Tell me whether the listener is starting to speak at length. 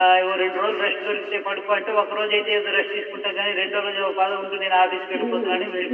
Yes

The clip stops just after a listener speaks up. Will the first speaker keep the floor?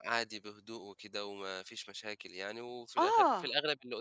Yes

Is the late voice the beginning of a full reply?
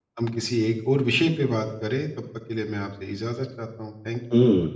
Yes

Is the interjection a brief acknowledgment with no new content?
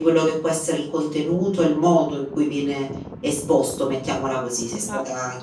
No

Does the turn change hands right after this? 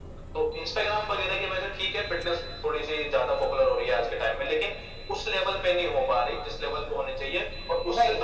Yes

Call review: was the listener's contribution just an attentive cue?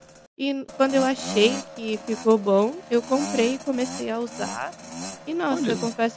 Yes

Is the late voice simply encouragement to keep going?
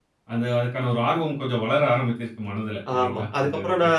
No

